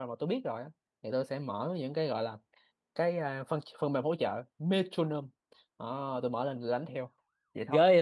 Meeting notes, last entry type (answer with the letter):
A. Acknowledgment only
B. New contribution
B